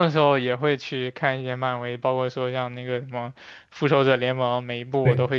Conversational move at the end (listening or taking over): listening